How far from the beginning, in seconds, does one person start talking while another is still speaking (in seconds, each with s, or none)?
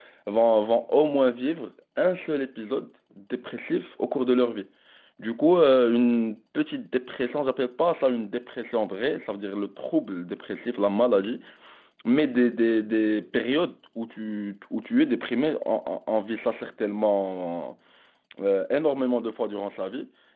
none